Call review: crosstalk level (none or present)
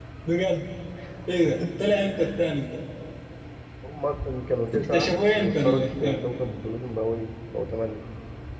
present